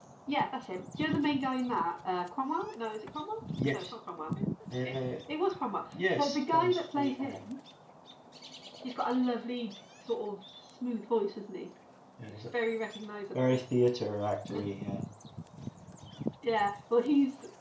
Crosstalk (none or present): present